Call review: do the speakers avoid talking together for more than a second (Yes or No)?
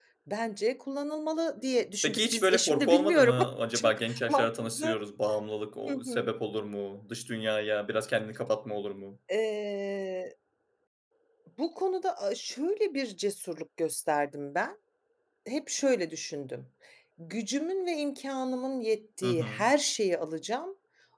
No